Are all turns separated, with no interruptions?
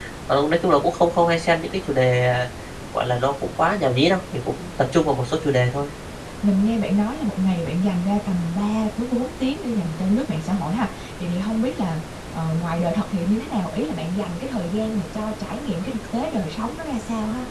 Yes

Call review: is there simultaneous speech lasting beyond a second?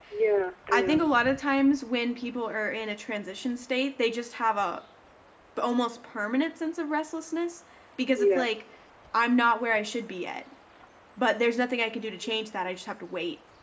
No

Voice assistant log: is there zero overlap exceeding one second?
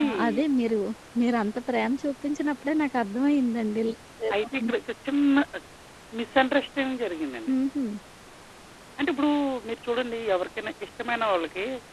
Yes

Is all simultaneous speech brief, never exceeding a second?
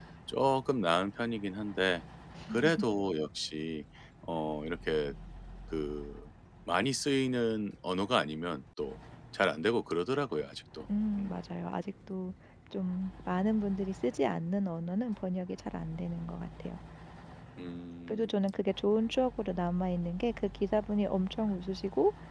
Yes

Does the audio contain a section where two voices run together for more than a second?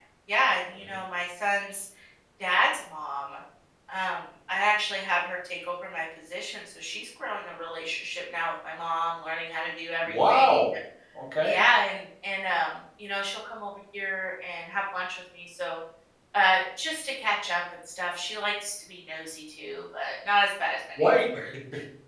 No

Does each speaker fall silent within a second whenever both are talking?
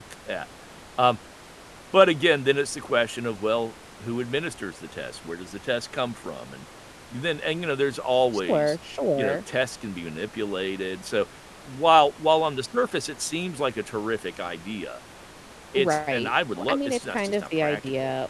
No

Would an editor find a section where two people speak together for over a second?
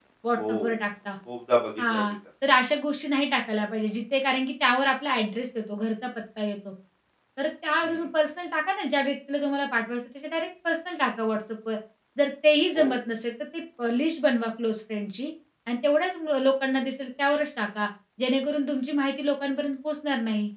No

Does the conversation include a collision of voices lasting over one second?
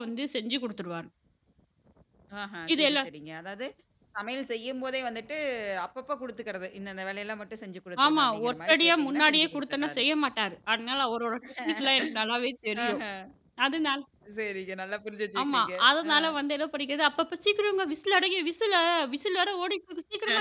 Yes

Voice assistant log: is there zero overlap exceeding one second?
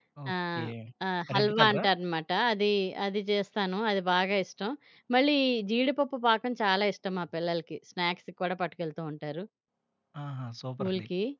Yes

